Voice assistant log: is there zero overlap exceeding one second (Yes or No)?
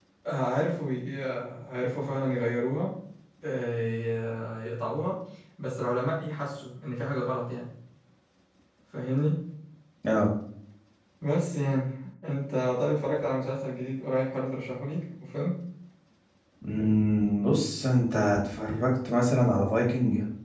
Yes